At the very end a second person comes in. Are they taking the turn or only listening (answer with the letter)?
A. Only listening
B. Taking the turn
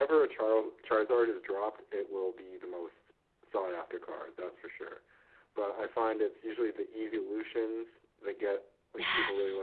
A